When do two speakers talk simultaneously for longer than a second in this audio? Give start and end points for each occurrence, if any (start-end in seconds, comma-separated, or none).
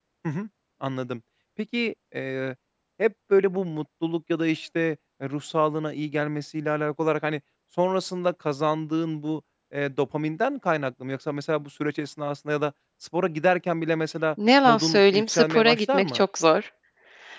14.6-16.2